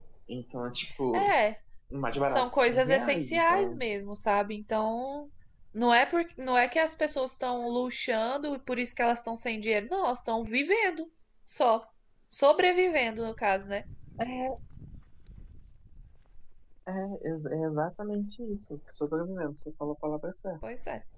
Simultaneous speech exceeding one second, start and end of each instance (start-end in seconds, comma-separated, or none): 2.2-3.8